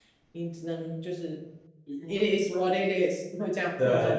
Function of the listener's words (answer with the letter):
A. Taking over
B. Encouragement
A